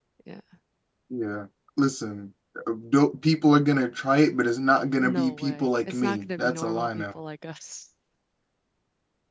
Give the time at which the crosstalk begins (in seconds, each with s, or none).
5.0 s